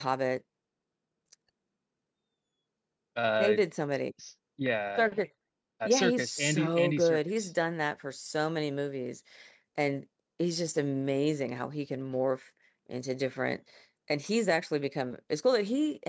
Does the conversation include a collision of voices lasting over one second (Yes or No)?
Yes